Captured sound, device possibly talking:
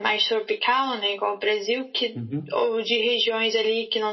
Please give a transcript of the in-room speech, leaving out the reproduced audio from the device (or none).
Uhum.